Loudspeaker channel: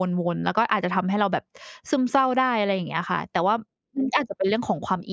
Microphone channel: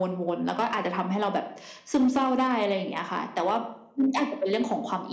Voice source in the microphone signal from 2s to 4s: echo only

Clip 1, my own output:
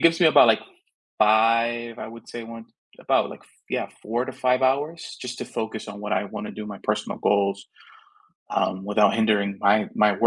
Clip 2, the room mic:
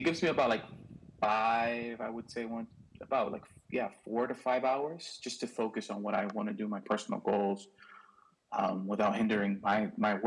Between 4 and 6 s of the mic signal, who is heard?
echo only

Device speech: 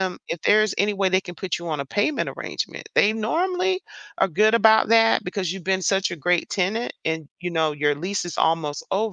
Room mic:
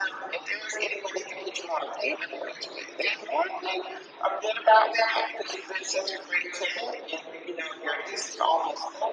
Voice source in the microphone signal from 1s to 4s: echo only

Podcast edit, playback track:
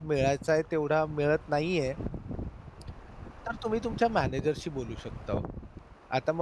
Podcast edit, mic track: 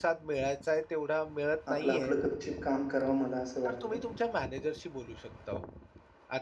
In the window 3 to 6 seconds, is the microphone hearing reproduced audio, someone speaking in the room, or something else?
both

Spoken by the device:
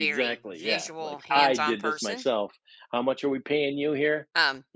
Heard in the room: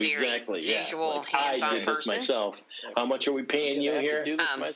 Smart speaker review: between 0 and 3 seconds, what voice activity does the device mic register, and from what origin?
both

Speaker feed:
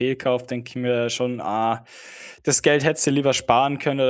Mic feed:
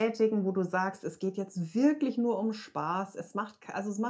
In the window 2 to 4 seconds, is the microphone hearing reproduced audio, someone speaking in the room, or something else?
user only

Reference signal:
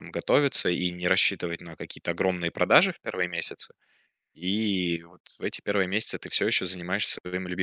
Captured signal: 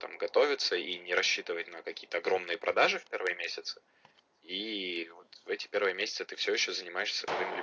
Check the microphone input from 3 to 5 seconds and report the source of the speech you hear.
echo only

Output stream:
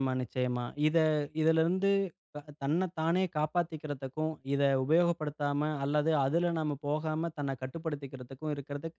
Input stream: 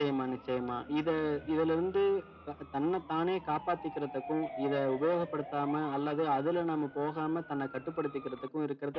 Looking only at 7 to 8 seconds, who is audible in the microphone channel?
echo only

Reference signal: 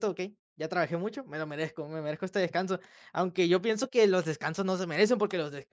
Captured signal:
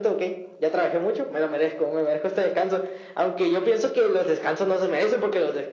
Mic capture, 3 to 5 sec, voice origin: echo only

